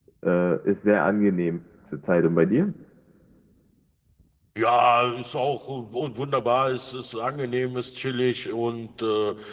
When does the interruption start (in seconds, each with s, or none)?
none